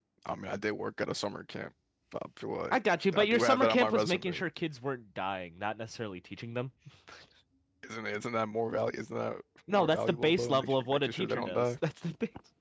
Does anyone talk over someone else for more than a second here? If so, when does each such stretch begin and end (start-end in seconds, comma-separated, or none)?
3.2-4.4, 9.7-11.7